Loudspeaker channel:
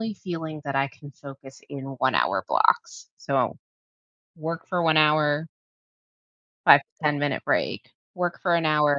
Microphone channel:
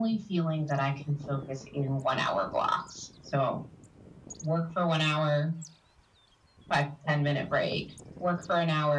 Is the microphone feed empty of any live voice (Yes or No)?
Yes